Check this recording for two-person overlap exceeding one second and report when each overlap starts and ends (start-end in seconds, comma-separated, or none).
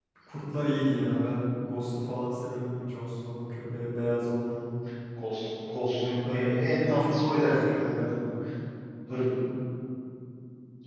6.2-8.2